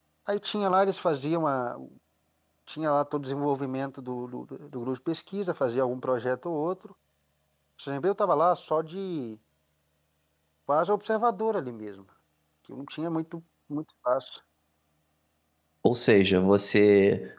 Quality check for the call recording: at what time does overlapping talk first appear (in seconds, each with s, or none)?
none